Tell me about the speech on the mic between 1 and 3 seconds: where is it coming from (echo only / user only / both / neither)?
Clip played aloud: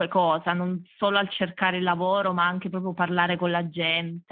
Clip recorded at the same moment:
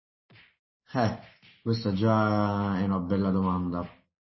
user only